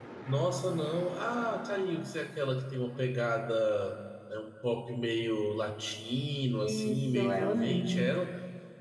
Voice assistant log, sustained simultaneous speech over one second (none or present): present